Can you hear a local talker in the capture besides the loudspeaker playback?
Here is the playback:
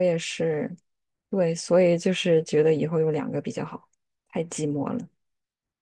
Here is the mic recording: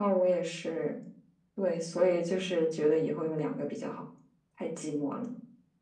No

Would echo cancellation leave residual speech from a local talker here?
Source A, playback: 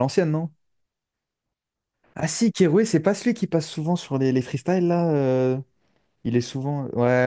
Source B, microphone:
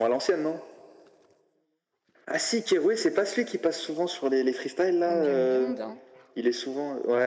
Yes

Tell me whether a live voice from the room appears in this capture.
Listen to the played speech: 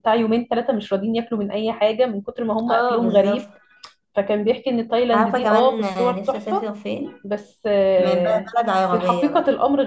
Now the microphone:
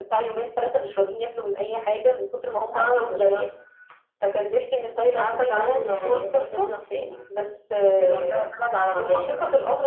No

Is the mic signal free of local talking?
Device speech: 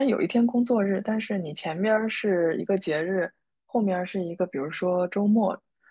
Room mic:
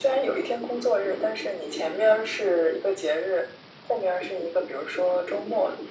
Yes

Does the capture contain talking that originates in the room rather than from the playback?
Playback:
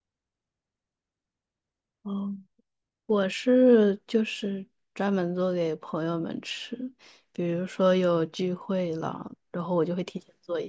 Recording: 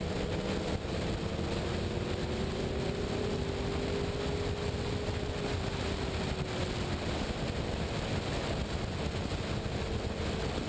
No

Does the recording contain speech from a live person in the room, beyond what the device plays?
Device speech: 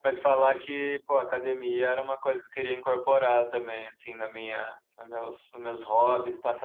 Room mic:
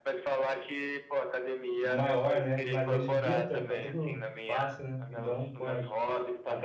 Yes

